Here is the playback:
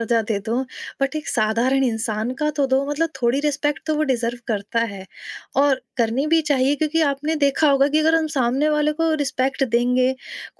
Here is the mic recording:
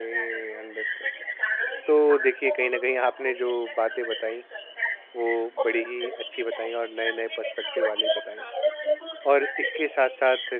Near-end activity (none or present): present